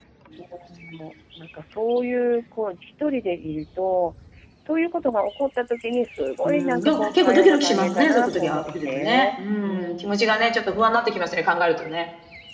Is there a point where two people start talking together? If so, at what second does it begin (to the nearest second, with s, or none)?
6 s